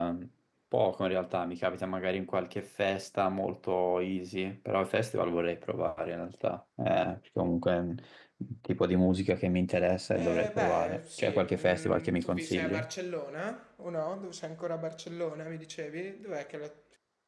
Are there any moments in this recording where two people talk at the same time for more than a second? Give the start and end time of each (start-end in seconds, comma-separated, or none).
10.1-12.7